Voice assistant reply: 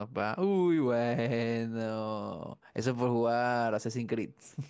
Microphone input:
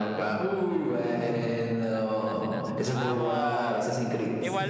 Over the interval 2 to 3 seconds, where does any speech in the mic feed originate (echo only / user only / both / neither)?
both